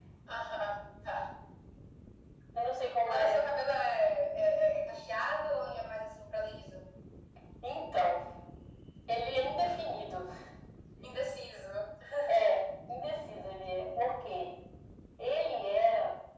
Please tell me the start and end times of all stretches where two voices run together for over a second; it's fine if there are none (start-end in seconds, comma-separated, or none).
none